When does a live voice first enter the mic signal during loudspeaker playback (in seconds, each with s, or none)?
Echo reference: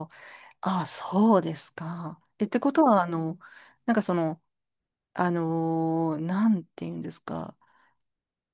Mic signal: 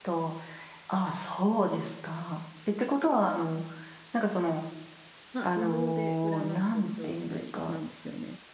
5.3 s